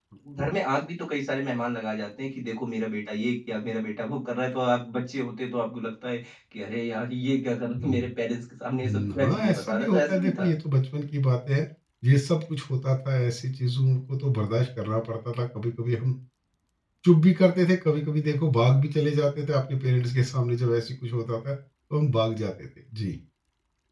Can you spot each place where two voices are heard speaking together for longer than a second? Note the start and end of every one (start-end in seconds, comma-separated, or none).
8.8-10.5